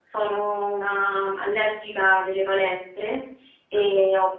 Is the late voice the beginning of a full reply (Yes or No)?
No